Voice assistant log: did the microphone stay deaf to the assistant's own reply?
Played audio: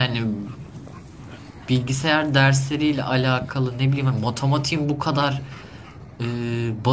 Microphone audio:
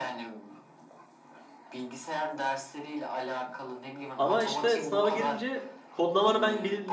No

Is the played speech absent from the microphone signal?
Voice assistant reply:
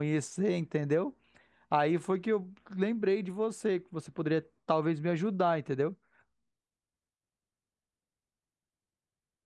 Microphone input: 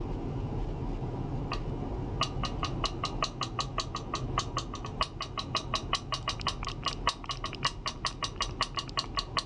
Yes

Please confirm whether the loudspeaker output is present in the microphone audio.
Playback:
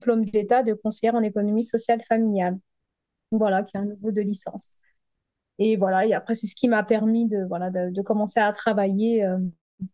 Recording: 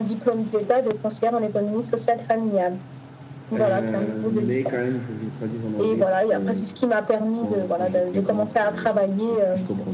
Yes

